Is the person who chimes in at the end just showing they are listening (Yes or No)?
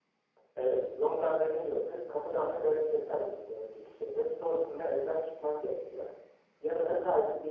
Yes